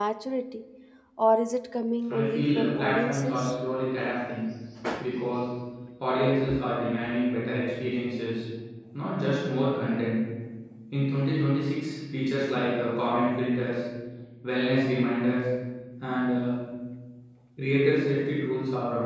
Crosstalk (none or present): present